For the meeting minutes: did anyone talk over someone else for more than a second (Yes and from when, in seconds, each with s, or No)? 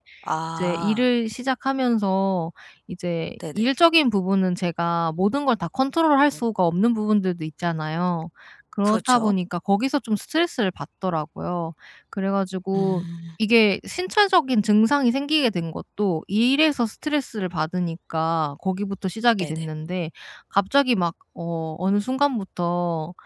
No